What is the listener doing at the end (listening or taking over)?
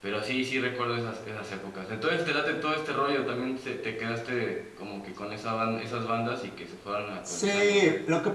taking over